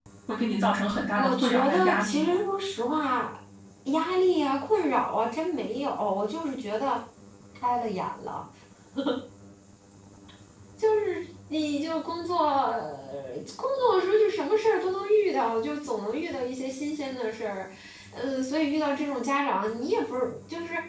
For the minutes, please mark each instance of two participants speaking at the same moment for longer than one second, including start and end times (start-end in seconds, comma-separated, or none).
1.2-2.4